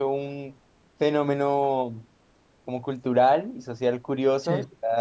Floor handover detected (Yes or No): No